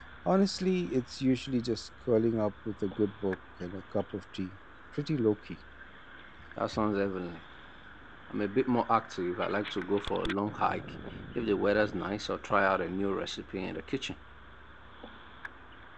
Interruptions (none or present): none